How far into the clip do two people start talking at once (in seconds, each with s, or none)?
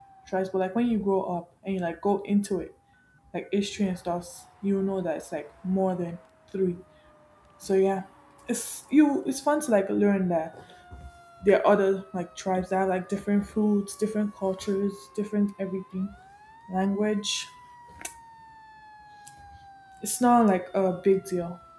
none